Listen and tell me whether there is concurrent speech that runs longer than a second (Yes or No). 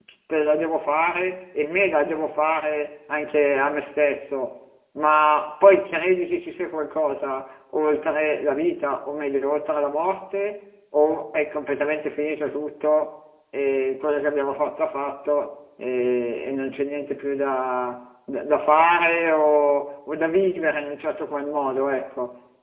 No